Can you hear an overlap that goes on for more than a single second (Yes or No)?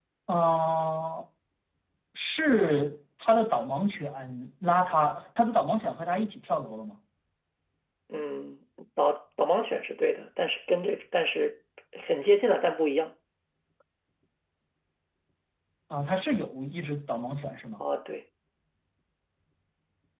No